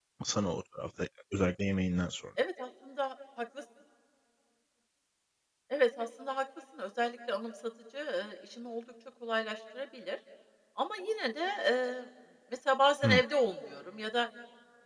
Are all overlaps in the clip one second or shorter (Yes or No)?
Yes